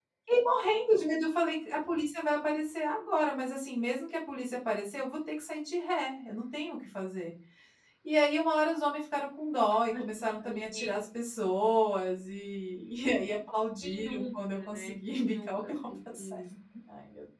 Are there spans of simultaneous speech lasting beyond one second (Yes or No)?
Yes